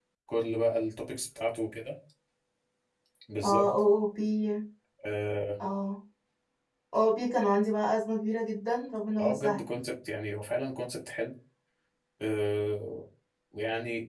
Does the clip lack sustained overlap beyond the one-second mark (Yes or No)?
Yes